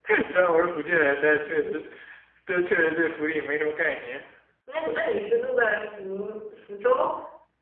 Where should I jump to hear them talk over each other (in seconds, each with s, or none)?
none